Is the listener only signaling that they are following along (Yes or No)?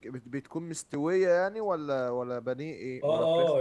No